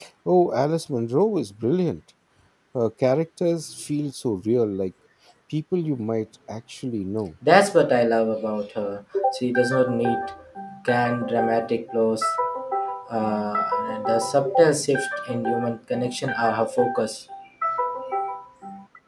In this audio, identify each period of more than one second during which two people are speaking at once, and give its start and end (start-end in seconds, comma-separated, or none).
none